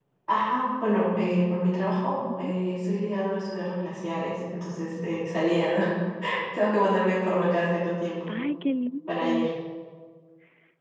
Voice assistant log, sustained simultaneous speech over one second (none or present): none